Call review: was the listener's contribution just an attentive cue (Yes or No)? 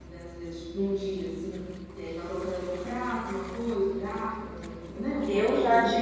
No